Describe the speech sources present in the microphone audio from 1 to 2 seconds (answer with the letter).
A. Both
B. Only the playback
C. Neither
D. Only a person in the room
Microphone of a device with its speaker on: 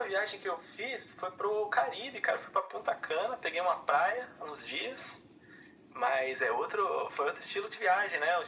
B